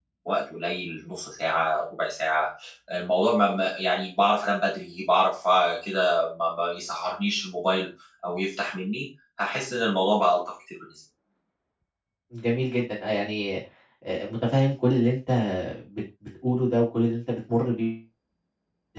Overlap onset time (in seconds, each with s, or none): none